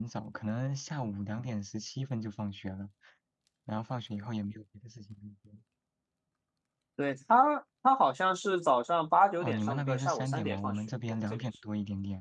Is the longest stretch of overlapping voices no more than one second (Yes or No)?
No